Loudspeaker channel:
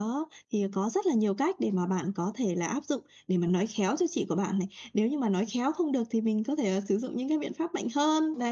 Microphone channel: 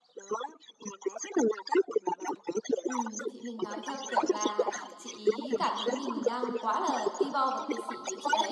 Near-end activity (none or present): present